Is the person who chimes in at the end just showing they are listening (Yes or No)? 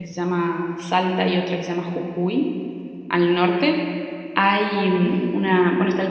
Yes